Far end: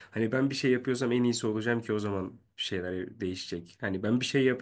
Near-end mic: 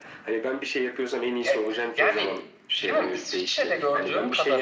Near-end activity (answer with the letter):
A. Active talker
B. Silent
A